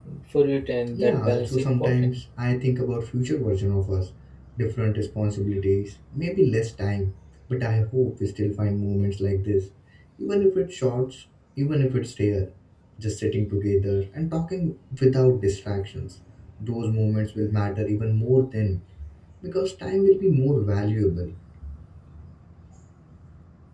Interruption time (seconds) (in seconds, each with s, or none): 0.9 s